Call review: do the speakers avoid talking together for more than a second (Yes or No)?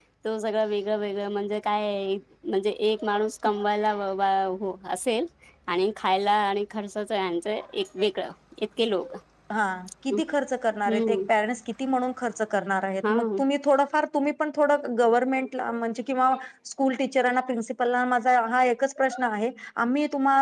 Yes